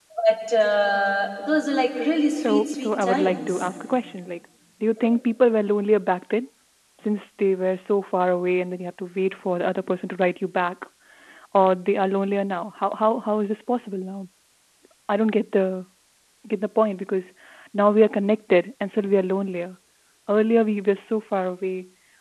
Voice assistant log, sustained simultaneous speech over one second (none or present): present